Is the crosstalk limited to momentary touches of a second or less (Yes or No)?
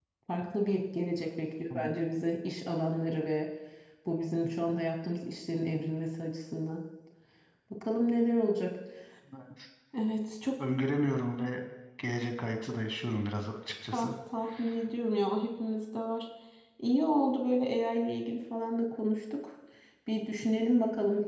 Yes